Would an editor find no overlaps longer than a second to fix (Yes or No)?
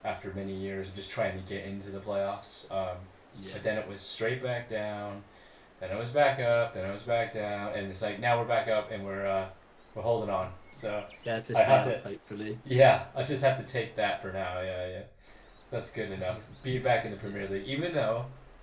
Yes